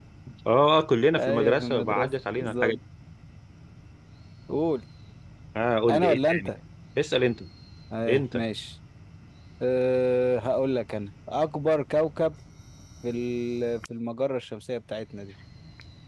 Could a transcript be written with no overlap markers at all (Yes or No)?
No